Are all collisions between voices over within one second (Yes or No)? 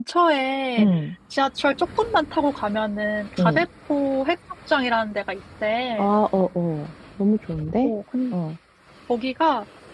Yes